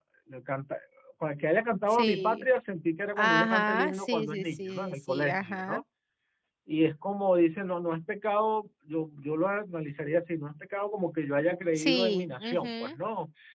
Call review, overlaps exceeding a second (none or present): present